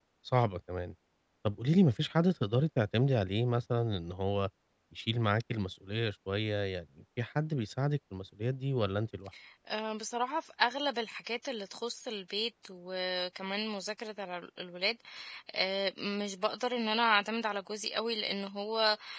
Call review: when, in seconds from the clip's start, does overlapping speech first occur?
none

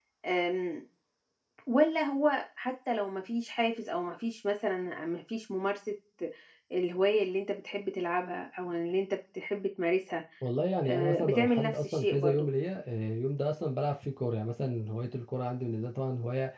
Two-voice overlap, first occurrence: 10.8 s

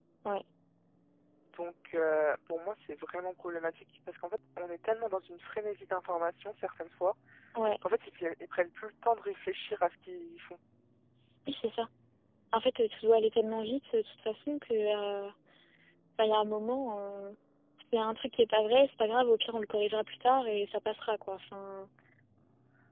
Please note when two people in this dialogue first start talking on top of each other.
none

